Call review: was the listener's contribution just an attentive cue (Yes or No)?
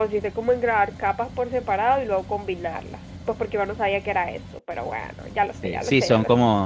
No